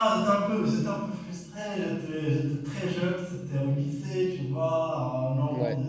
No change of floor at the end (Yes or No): Yes